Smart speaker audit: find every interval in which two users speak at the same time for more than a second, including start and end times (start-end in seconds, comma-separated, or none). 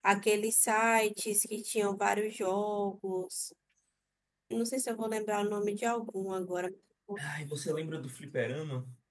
none